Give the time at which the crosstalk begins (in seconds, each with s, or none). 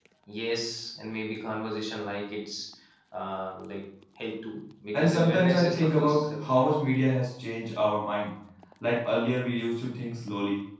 4.9 s